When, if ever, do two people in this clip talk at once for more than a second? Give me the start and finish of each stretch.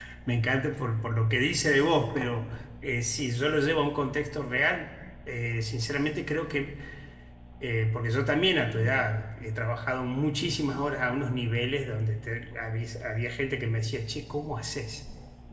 none

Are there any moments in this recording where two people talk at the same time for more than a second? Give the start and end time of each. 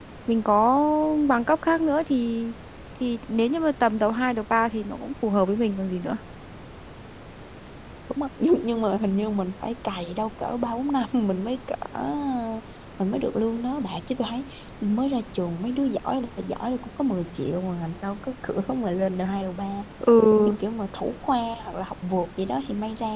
none

